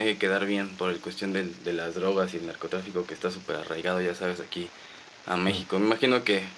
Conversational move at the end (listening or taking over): listening